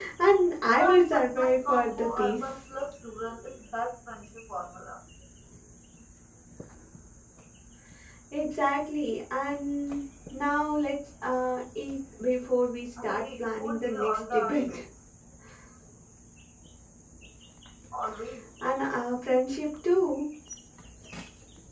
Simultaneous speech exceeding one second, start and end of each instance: 0.8-2.4, 13.0-14.8

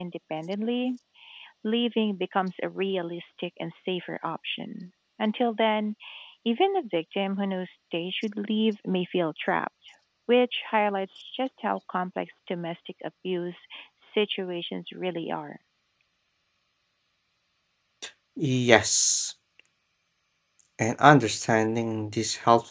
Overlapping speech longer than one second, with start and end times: none

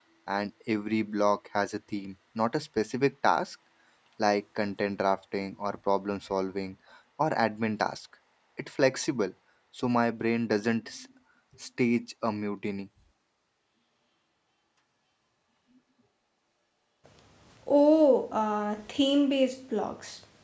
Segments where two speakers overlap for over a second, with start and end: none

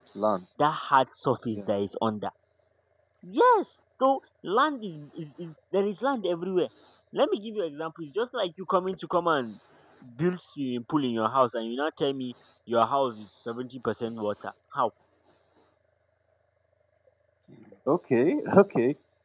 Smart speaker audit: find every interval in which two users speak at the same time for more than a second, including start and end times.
none

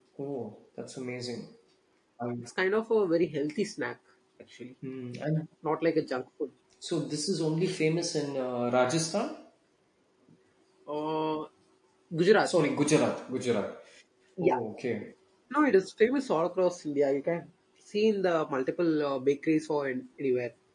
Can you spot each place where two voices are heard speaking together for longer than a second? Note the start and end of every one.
none

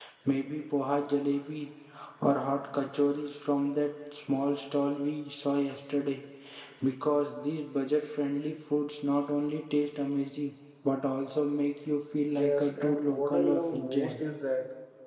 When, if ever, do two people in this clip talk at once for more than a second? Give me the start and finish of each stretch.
12.3-14.2

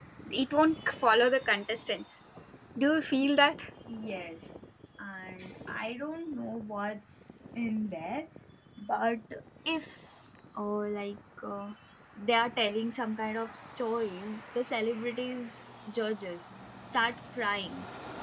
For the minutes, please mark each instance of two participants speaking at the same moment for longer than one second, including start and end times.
none

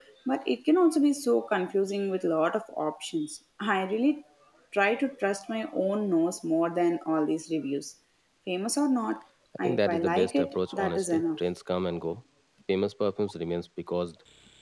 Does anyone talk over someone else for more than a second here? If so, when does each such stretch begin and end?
9.6-11.4

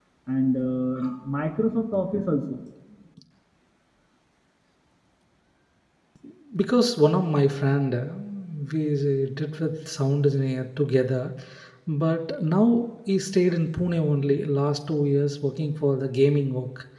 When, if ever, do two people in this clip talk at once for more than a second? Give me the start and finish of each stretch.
none

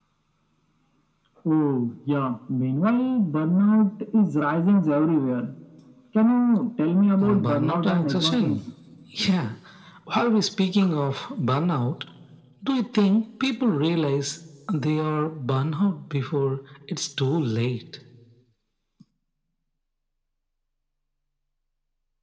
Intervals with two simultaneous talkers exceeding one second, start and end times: 7.2-8.6

